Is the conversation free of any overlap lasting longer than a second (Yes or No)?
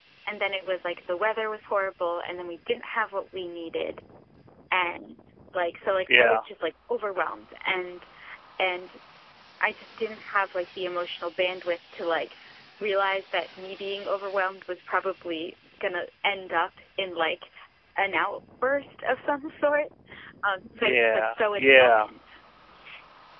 No